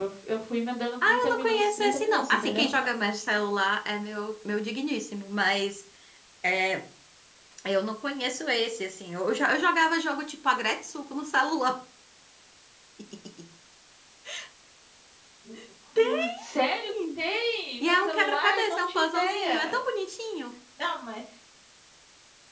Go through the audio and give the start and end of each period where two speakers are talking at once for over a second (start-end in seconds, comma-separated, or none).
1.1-2.6, 17.8-19.8